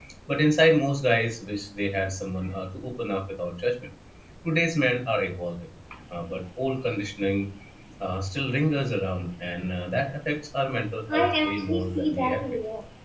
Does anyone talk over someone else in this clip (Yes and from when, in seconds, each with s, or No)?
Yes, from 11.1 s